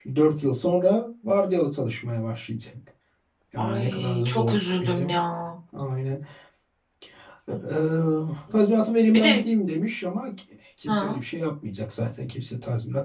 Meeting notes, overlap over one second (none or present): present